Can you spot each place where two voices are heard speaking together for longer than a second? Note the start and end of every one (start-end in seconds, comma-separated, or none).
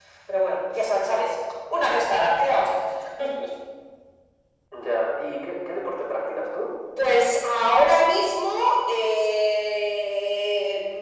none